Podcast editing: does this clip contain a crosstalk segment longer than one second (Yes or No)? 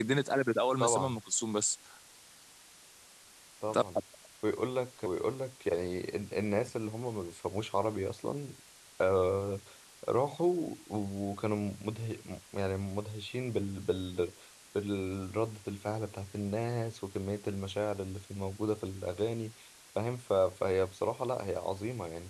No